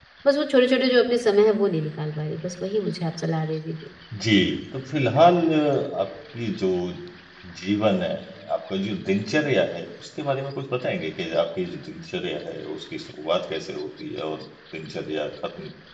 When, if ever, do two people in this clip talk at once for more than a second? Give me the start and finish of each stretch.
none

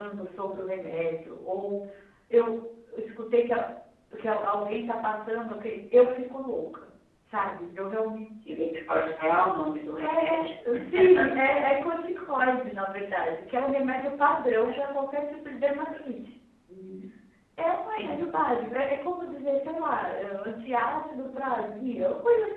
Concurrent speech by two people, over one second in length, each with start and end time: none

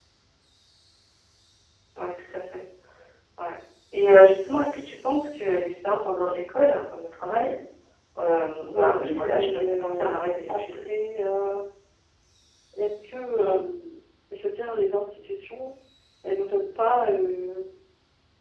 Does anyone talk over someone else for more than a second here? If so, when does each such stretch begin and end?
8.7-10.6

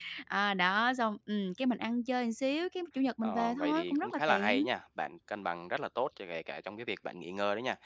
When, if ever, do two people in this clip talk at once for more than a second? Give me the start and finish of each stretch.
3.2-4.6

